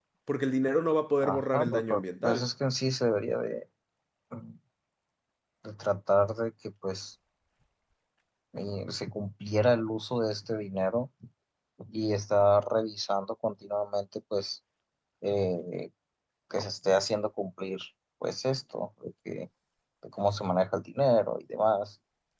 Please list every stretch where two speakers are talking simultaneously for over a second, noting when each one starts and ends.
1.2-2.5

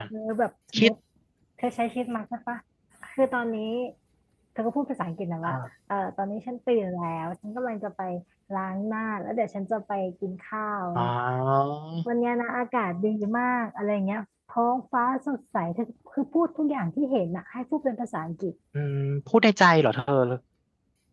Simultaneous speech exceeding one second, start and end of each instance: none

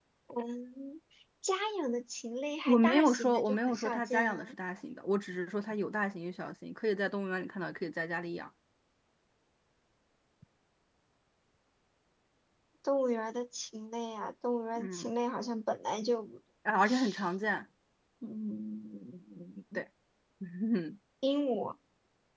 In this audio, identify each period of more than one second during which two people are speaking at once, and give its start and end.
2.6-4.5

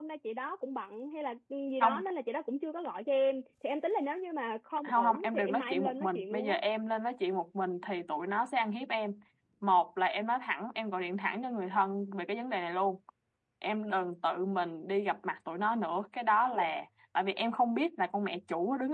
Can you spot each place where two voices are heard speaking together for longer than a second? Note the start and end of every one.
4.9-6.6

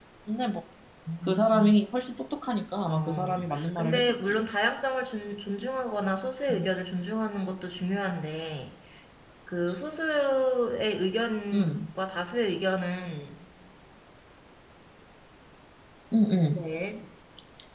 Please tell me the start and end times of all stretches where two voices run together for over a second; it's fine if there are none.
2.9-4.4

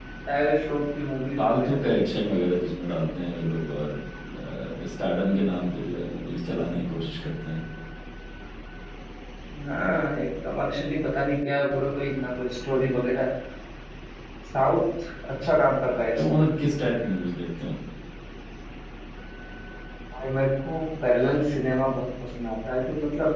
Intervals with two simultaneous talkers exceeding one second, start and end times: none

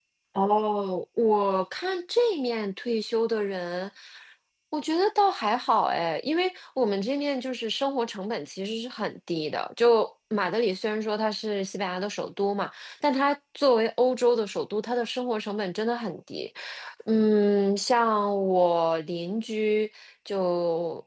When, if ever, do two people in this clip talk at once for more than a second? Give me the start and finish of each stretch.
none

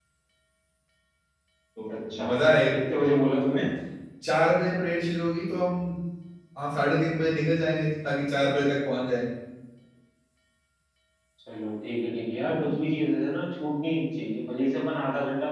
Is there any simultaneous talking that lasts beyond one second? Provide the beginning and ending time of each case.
none

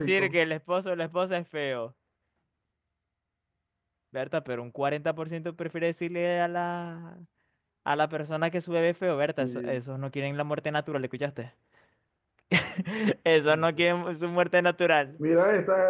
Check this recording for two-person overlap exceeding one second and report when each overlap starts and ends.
none

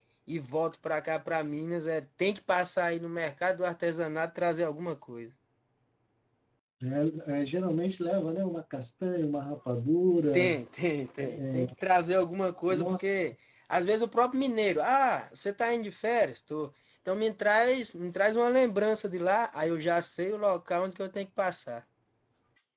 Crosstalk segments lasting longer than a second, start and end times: none

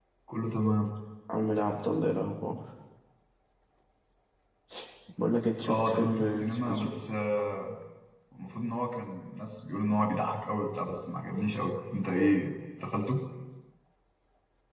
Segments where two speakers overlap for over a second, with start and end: 5.7-6.9

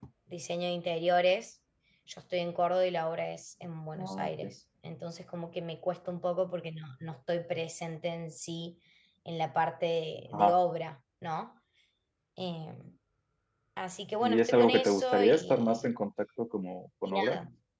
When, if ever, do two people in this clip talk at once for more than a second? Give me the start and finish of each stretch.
14.2-15.9

